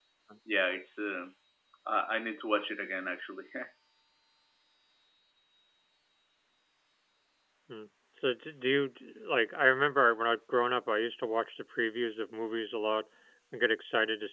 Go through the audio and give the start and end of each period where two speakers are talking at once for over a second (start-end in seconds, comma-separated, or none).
none